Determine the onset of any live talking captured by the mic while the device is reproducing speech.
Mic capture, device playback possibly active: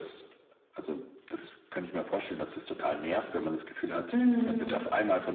4.1 s

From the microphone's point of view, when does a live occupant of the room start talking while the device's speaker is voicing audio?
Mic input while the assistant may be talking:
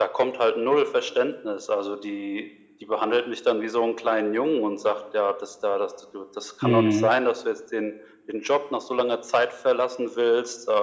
6.6 s

